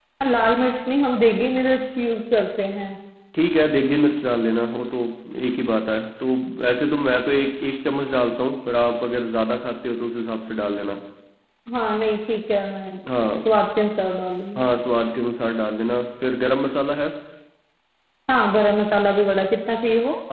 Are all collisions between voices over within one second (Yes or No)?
Yes